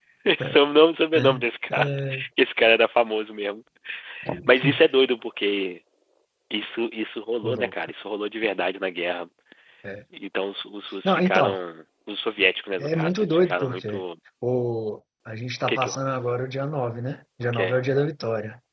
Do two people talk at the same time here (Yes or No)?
Yes